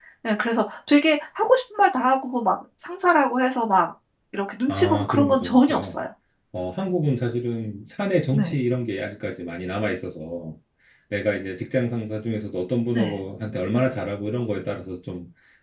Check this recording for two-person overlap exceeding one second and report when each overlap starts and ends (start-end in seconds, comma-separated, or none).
4.7-5.9